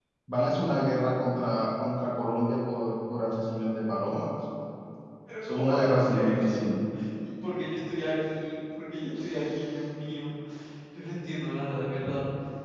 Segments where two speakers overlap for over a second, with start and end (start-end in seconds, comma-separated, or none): 5.4-6.8